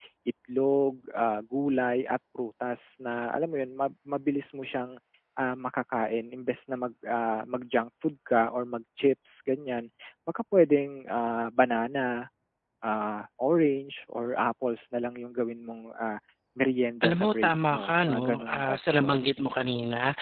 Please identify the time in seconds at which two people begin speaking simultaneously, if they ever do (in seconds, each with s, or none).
17.0 s